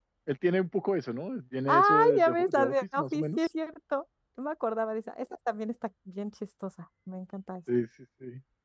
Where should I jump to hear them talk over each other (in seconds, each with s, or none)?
1.7 s